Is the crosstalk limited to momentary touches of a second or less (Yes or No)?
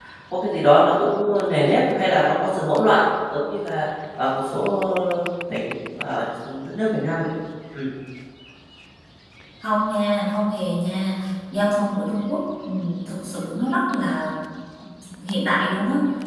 Yes